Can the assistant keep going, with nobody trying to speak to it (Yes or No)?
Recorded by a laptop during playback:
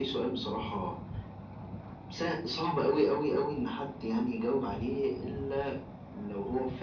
Yes